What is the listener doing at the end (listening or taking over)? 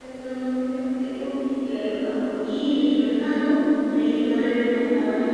listening